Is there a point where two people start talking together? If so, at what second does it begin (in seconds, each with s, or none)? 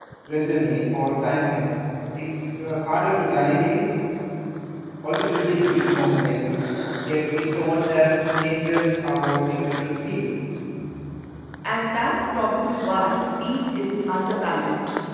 none